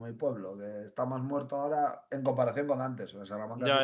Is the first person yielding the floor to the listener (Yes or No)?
Yes